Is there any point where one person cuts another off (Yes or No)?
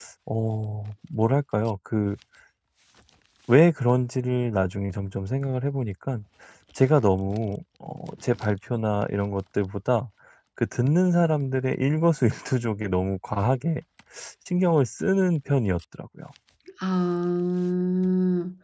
No